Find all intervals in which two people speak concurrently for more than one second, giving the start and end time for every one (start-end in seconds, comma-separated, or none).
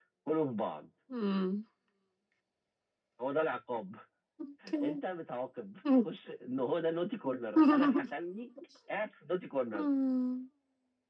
none